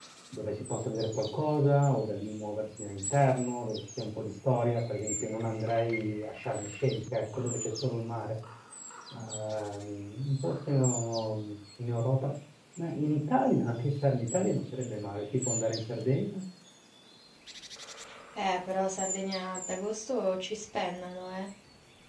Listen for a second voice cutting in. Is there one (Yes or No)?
No